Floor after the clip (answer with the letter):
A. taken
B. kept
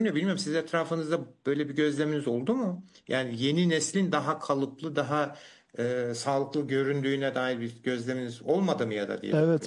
A